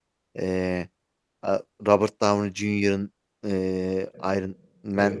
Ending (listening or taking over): listening